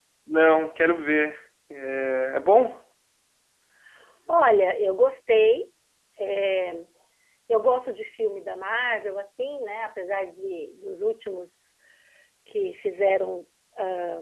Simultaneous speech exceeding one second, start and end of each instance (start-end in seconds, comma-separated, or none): none